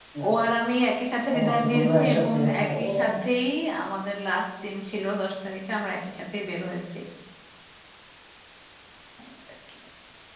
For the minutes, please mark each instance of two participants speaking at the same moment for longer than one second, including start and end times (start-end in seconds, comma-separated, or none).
1.4-3.1